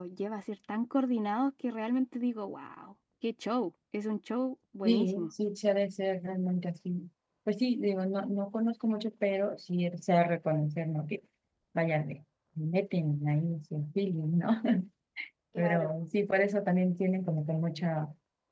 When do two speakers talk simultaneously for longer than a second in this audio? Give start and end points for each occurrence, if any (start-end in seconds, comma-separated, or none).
none